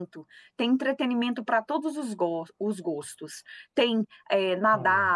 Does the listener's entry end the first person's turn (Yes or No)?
No